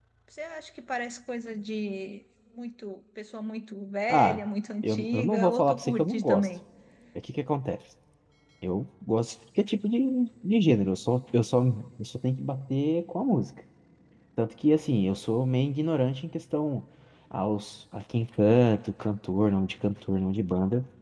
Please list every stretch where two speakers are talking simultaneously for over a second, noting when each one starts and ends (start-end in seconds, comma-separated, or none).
4.8-6.5